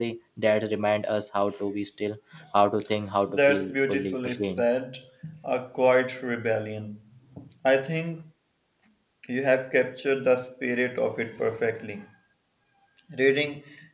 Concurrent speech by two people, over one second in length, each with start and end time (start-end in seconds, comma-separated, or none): 3.3-4.6